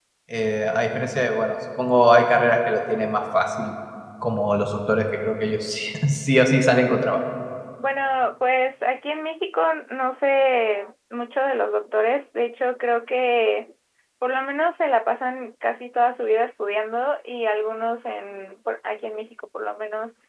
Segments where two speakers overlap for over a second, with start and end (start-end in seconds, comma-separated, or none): none